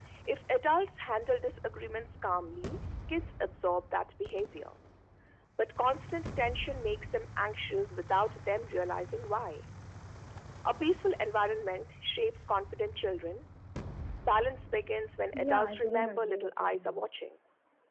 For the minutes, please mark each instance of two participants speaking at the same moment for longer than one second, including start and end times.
15.4-17.1

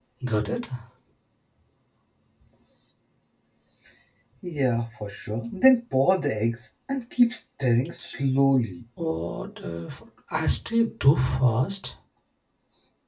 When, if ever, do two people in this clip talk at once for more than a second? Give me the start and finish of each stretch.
none

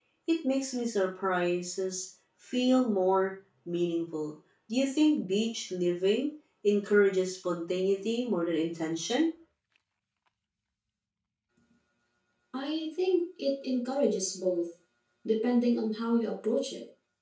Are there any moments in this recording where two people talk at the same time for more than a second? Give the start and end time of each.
none

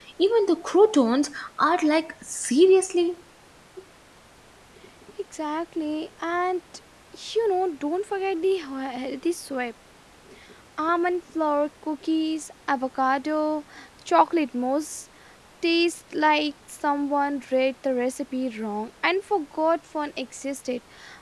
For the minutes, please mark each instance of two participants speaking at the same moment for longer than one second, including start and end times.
none

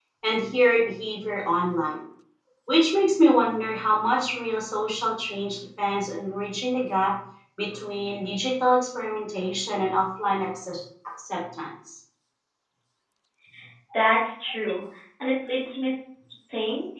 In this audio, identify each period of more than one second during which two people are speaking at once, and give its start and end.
none

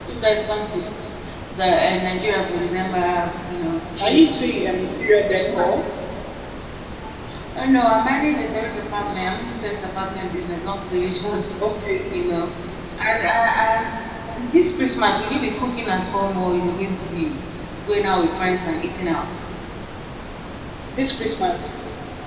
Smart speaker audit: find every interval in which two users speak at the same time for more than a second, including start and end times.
none

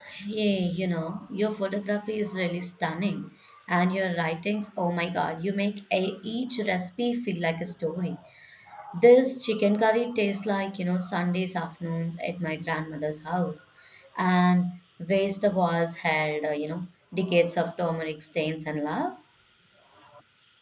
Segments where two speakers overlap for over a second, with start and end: none

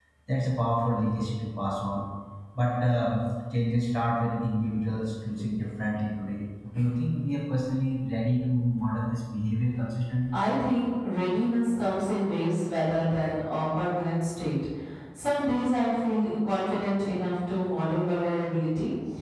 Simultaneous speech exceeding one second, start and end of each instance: none

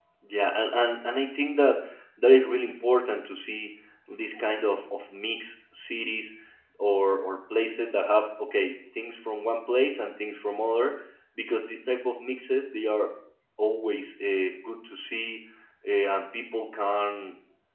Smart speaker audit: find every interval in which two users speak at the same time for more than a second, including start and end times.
none

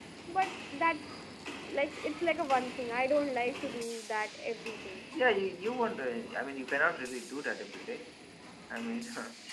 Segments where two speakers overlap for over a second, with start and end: none

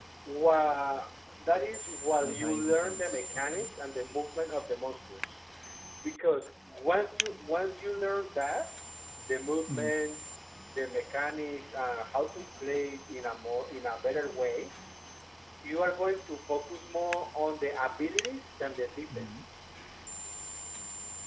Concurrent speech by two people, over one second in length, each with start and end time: 2.2-3.7

